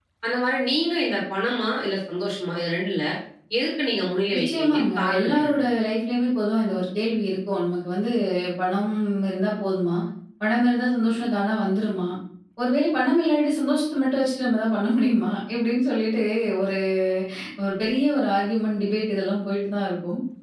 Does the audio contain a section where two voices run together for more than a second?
Yes, from 4.3 s

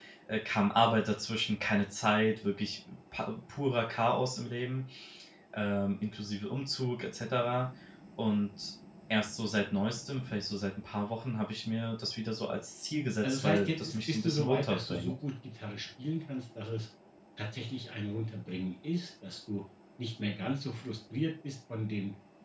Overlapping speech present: Yes, from 13.2 s

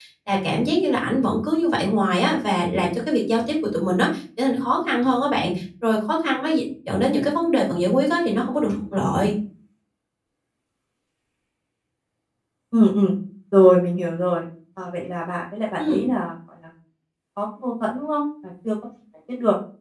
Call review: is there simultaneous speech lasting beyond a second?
No

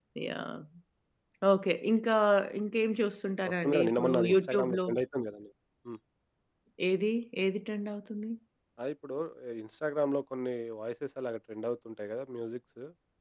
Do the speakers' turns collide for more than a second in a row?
Yes, from 3.5 s

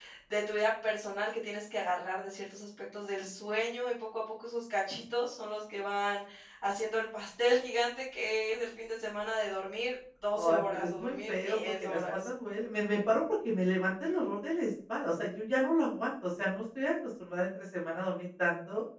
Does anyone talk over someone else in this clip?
Yes, from 10.3 s

